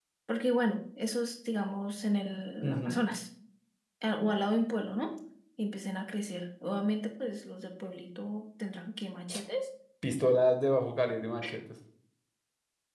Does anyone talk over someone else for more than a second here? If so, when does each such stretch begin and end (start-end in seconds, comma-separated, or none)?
none